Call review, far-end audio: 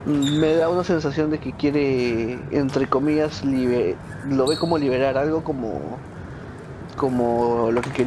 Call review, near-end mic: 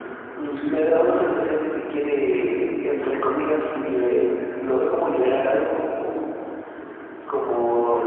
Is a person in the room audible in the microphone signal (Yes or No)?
No